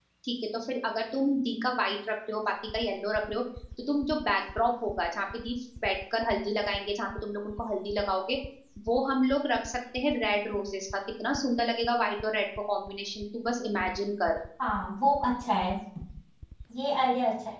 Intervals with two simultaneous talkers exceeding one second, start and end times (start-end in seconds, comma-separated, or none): none